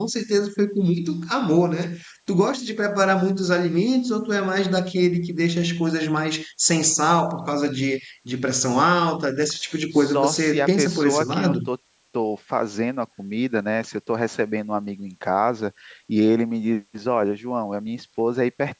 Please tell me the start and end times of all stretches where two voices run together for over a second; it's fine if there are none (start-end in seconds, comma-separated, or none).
9.9-11.6